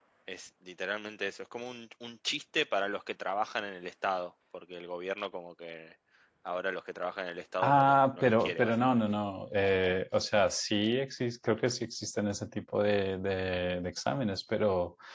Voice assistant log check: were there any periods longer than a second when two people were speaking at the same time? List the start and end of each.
7.6-9.0

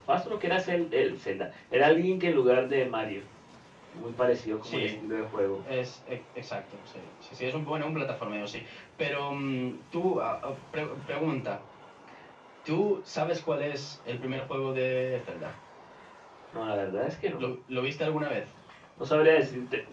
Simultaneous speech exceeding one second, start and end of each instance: none

